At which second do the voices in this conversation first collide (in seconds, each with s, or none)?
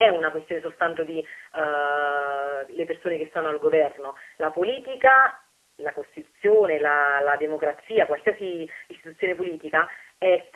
none